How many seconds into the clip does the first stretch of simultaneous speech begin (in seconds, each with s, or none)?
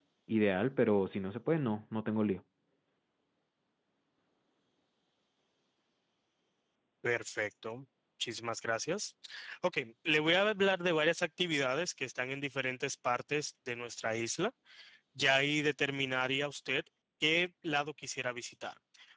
none